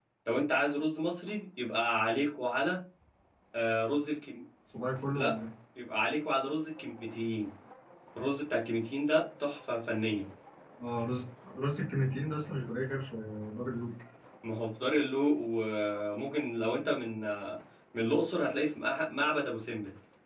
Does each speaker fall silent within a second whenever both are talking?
Yes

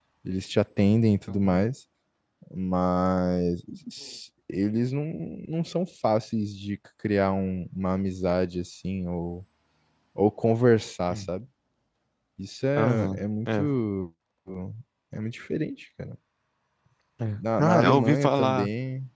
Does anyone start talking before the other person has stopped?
Yes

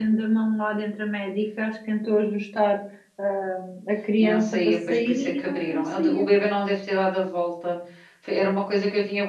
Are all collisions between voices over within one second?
No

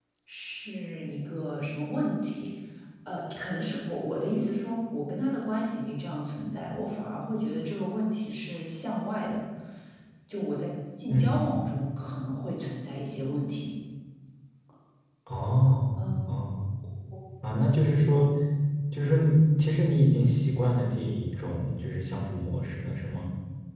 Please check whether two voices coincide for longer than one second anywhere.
No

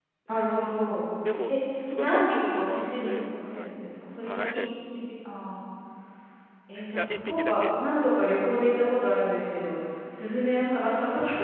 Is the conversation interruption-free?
No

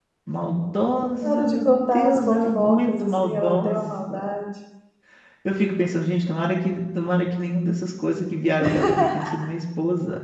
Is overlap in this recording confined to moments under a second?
No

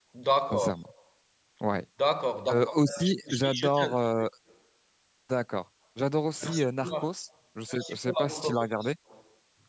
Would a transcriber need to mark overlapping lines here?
Yes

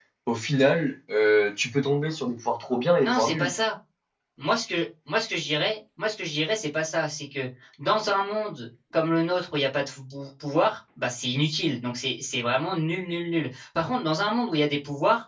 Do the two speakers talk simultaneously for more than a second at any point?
No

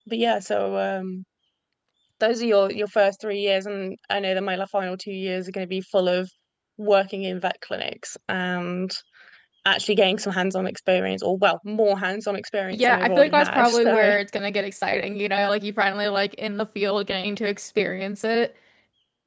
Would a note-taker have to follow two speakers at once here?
Yes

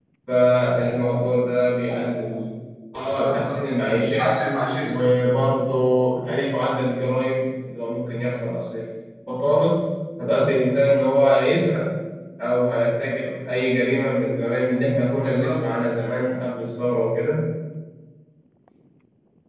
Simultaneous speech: Yes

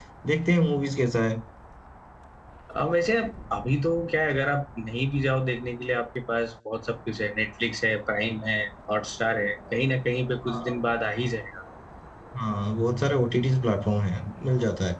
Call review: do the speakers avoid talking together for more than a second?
Yes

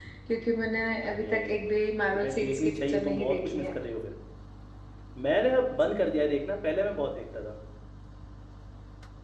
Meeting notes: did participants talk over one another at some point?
Yes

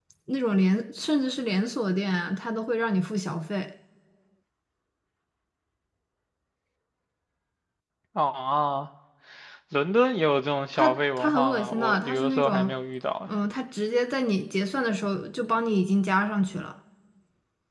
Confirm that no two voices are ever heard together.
No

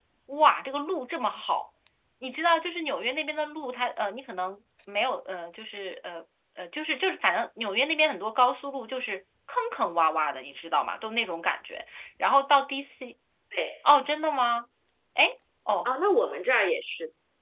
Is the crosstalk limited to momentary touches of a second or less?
Yes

